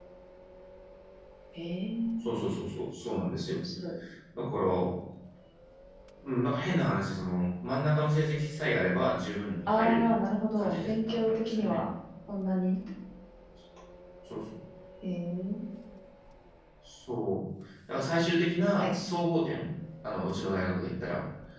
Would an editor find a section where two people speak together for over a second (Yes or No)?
Yes